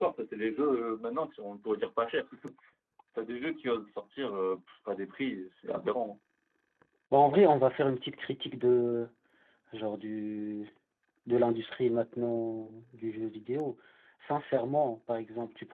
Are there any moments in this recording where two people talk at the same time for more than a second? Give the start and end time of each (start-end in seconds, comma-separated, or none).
none